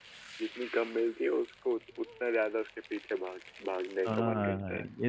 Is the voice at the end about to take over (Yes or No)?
Yes